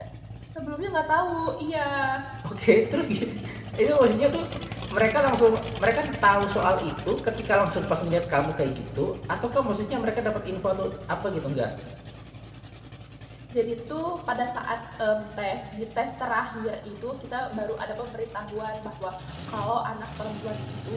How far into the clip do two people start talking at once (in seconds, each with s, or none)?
none